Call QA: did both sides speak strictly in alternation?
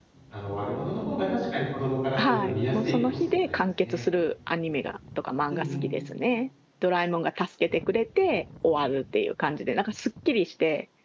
No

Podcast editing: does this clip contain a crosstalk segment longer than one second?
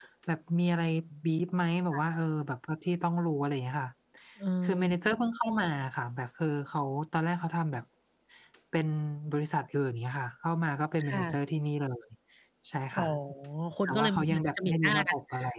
Yes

